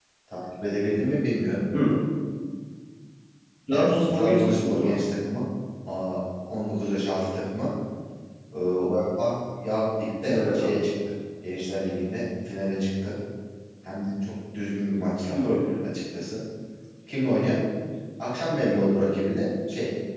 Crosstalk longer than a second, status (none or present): present